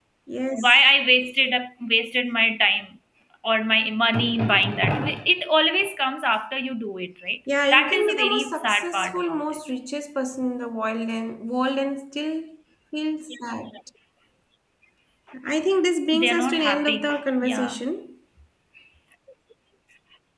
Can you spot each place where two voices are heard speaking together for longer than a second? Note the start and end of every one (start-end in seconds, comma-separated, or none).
7.7-9.4, 16.1-17.8